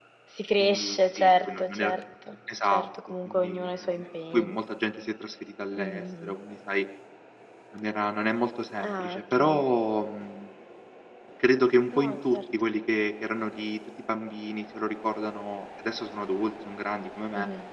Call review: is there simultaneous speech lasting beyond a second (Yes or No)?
Yes